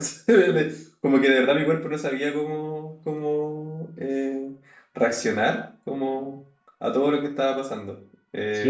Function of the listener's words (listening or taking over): taking over